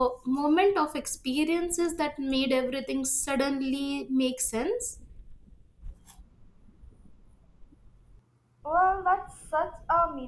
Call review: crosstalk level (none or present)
none